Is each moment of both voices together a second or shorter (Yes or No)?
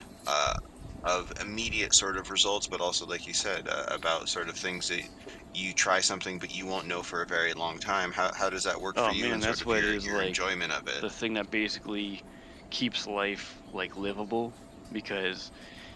No